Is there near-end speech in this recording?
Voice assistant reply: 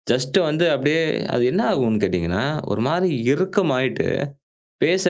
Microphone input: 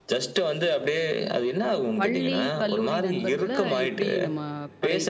Yes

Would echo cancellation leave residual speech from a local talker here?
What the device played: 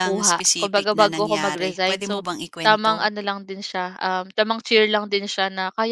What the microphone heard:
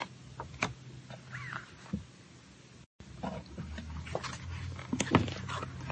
No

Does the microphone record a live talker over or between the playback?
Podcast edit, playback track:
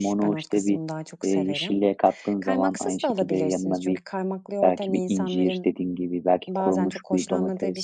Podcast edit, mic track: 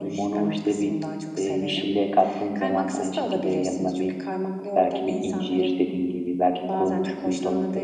No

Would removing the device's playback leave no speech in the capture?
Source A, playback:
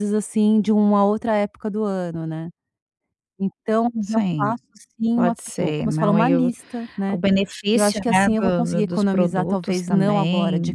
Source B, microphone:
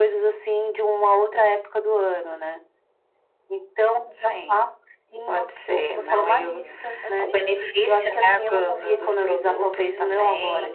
No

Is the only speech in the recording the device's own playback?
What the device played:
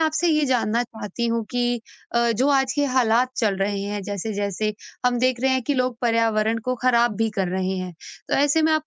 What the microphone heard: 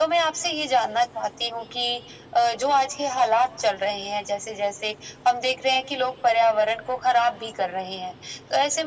Yes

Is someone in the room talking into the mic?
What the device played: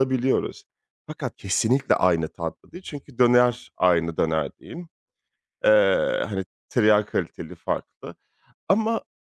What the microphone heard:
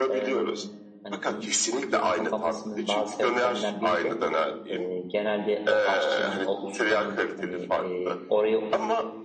Yes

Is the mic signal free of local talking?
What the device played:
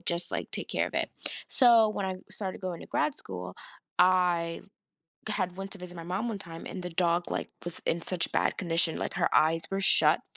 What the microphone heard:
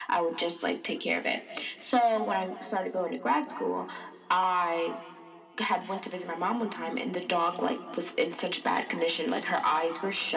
Yes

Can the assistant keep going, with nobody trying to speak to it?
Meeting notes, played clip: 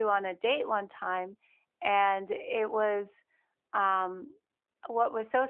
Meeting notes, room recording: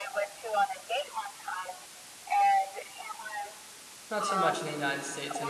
No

